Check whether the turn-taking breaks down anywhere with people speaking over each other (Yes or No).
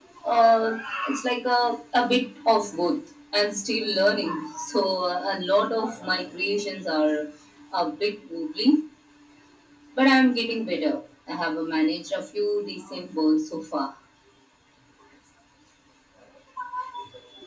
No